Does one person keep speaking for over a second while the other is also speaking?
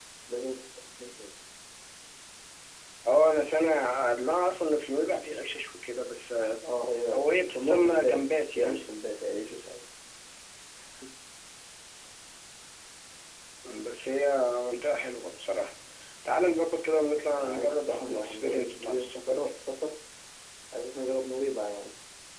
Yes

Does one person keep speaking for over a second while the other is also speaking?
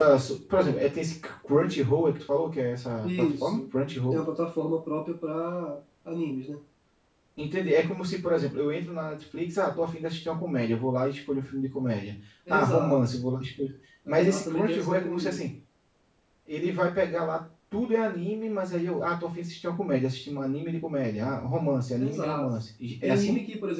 Yes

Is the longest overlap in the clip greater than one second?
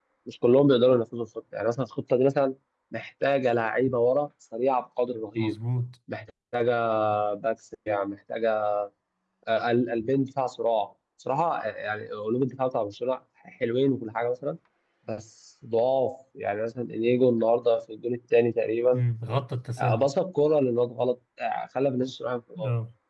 No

